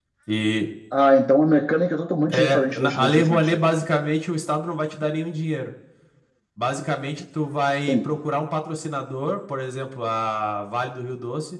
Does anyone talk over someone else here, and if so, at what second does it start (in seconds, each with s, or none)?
2.3 s